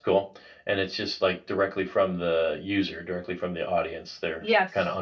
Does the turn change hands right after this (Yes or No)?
Yes